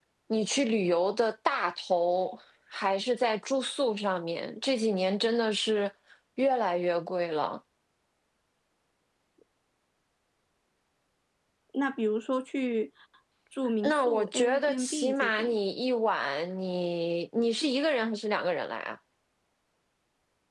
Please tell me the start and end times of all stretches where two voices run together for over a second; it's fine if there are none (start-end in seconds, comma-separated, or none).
13.8-15.5